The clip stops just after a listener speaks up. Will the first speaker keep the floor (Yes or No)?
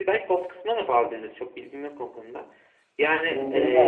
No